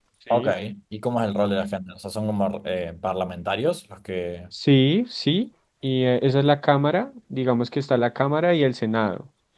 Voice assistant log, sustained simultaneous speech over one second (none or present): none